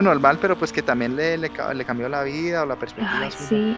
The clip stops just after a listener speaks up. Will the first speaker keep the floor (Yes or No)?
No